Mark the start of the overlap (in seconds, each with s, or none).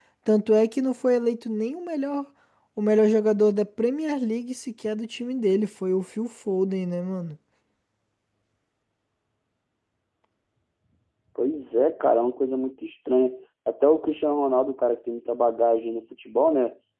none